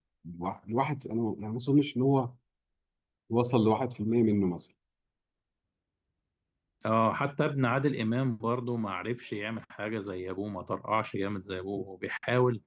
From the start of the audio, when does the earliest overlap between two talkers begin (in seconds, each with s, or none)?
none